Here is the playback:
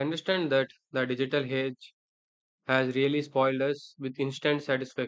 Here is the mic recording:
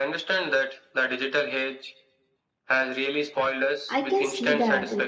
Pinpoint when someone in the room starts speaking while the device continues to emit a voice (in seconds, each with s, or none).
3.9 s